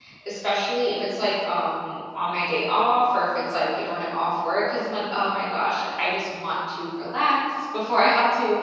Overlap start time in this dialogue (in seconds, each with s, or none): none